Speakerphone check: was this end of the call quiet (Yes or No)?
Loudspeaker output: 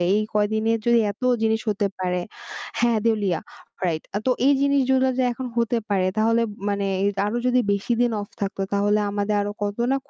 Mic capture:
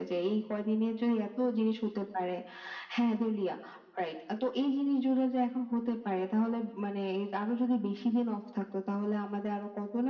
Yes